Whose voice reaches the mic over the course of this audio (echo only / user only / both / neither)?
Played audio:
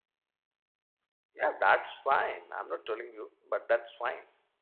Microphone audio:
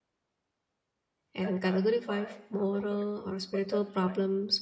both